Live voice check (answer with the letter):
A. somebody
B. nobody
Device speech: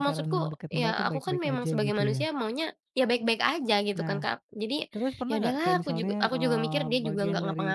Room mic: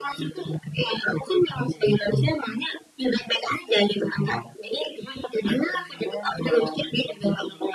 B